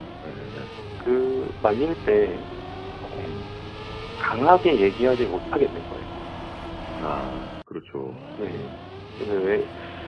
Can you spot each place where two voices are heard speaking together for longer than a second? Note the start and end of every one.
none

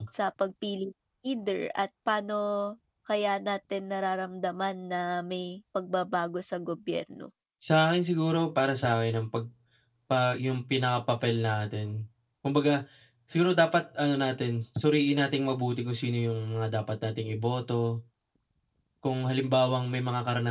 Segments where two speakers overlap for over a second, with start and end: none

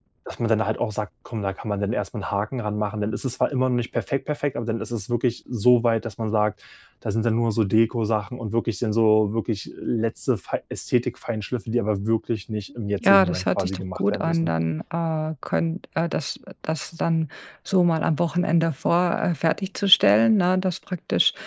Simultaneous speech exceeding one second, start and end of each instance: 13.0-14.5

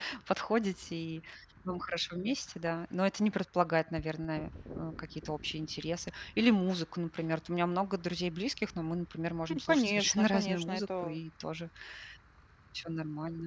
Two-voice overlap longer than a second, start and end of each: 9.5-11.1

